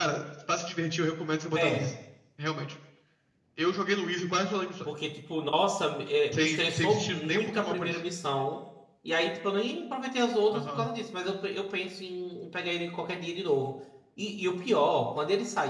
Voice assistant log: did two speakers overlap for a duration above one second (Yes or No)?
Yes